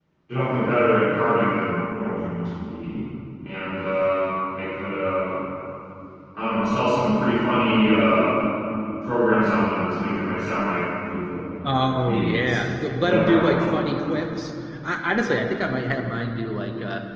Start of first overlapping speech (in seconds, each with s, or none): 11.7 s